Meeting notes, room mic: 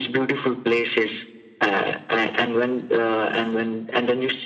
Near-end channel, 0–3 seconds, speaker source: echo only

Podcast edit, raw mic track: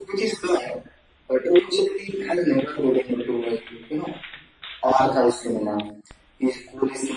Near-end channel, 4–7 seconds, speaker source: echo only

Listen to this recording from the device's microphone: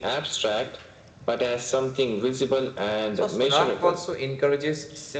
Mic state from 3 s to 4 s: both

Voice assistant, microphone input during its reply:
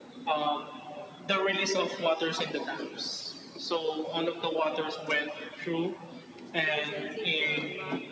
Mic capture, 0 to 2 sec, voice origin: echo only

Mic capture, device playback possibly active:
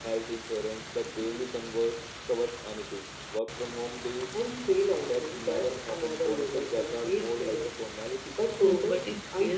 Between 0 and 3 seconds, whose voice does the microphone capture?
echo only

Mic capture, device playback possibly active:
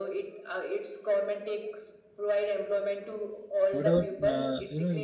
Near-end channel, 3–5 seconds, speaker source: both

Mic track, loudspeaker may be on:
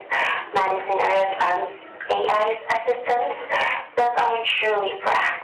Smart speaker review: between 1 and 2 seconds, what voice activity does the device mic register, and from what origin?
echo only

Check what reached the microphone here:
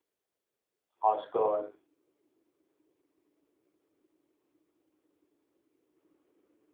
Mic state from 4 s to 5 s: neither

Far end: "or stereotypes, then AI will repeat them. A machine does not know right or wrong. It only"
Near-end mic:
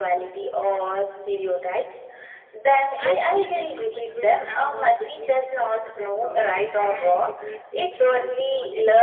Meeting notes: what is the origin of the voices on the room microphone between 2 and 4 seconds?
both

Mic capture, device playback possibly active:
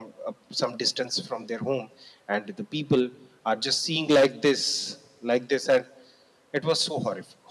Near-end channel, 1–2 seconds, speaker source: echo only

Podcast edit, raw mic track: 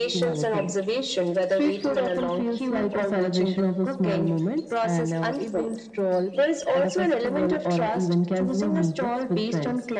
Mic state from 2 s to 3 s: echo only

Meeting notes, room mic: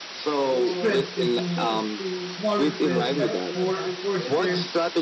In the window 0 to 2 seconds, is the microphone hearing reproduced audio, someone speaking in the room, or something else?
both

